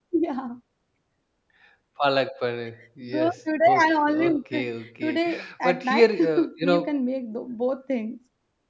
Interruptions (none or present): present